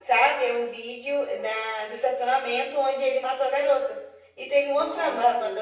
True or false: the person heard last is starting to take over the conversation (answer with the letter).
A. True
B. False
B